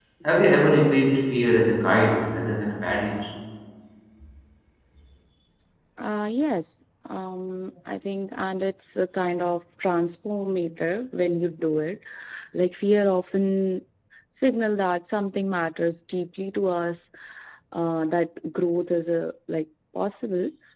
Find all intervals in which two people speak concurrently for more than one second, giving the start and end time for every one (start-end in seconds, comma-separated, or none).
none